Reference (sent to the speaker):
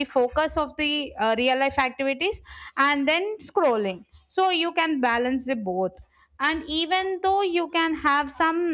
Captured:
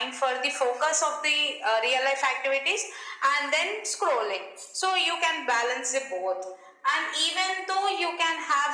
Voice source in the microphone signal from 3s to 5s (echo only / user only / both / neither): echo only